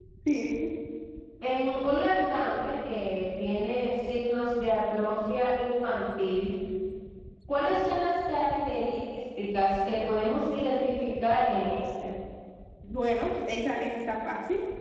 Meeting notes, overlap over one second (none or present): none